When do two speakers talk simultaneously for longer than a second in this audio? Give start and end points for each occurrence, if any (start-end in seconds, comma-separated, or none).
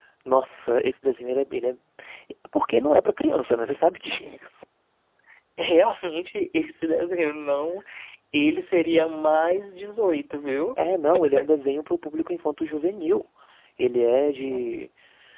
none